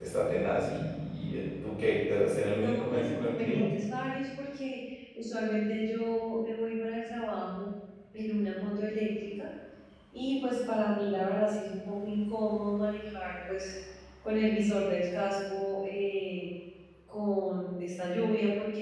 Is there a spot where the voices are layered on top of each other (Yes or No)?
Yes